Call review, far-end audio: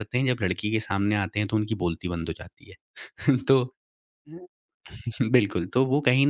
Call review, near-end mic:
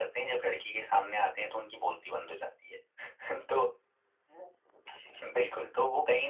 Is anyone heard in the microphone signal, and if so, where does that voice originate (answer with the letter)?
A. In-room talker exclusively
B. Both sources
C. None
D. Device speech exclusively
D